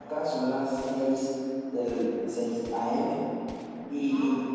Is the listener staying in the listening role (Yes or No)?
Yes